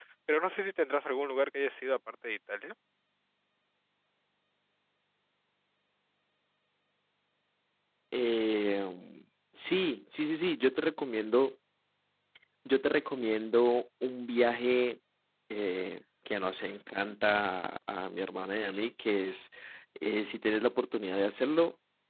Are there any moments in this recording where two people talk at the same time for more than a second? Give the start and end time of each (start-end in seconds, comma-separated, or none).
none